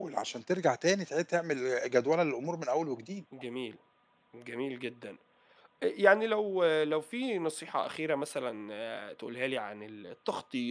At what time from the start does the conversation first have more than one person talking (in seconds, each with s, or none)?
none